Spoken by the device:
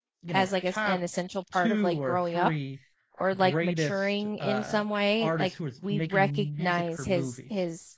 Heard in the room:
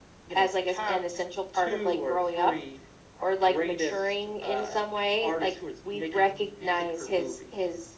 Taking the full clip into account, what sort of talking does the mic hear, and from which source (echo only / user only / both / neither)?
echo only